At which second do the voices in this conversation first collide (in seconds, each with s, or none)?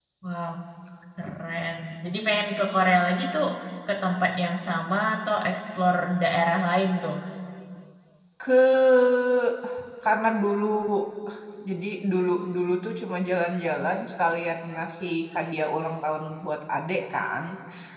none